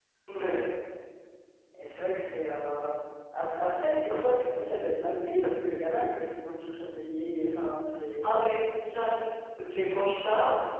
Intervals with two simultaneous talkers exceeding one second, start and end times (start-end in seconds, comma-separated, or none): none